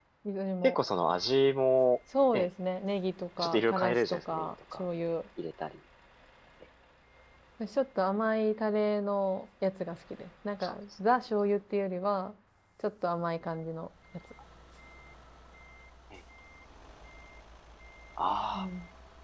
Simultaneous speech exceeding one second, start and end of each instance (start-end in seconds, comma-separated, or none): 3.4-4.8